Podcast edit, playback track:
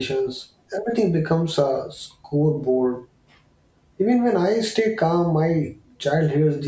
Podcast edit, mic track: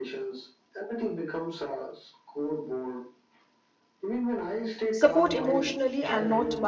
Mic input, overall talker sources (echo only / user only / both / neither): both